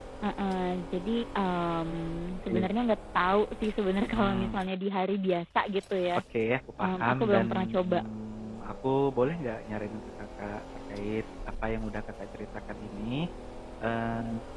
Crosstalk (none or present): present